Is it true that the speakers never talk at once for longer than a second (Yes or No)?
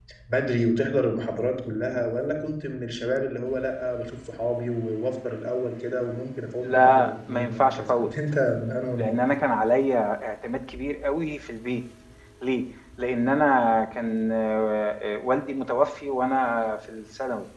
No